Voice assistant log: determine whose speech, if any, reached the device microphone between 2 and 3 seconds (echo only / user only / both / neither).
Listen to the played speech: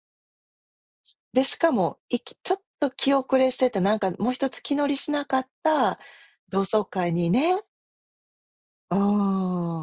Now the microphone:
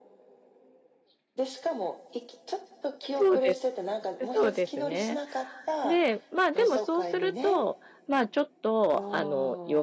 echo only